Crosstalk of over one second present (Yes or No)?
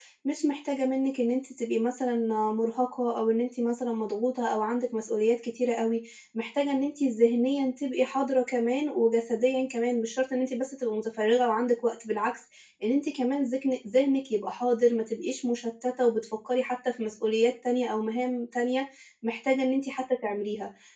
No